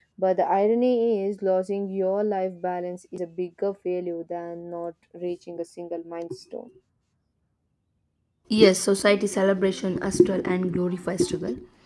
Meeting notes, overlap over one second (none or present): none